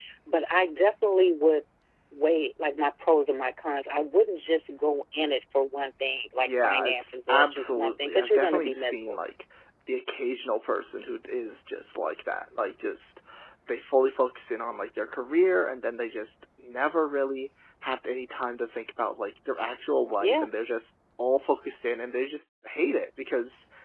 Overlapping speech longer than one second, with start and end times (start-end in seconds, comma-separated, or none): 6.4-9.2